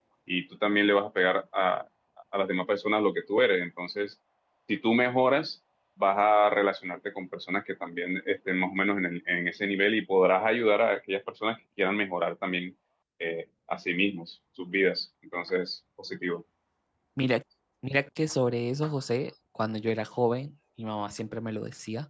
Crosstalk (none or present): none